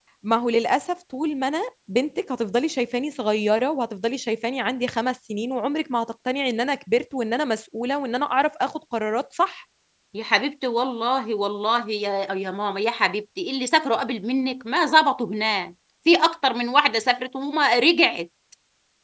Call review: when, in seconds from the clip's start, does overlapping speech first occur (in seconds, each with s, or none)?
none